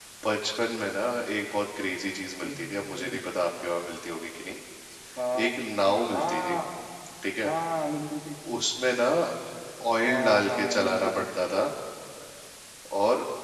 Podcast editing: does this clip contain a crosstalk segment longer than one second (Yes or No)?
Yes